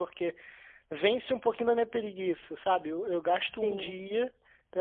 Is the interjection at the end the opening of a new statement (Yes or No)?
No